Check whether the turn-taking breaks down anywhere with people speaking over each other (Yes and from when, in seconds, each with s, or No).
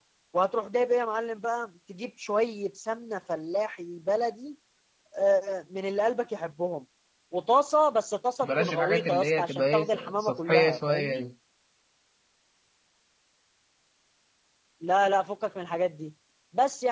Yes, from 8.4 s